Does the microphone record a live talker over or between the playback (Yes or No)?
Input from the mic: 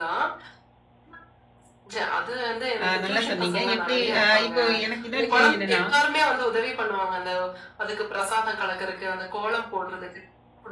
Yes